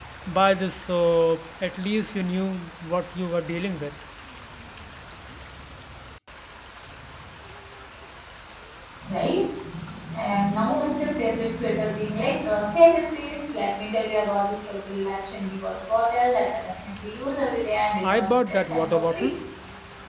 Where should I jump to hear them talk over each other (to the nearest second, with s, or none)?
18 s